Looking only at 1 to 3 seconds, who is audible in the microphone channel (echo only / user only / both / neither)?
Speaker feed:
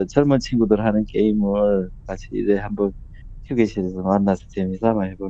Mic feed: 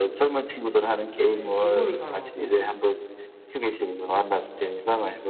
both